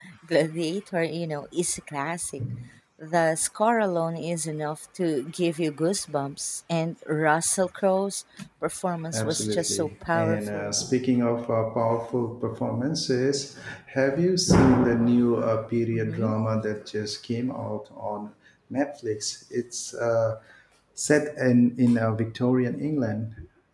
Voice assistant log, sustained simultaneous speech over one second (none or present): present